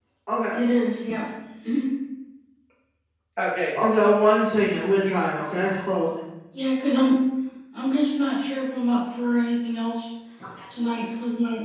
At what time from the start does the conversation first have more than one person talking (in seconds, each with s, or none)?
none